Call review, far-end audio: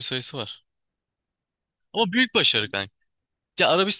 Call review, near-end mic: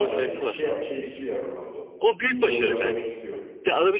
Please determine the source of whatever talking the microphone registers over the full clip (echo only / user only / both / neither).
both